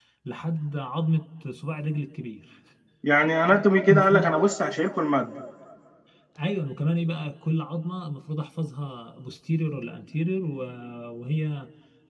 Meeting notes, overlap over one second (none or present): none